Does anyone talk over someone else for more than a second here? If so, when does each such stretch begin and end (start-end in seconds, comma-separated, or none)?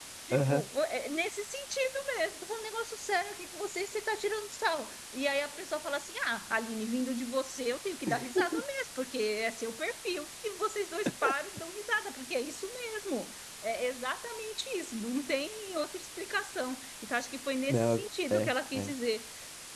17.7-18.9